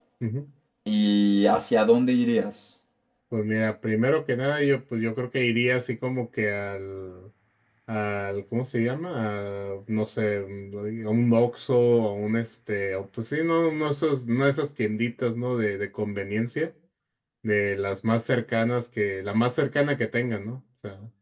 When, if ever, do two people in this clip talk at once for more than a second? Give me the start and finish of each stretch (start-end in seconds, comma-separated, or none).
none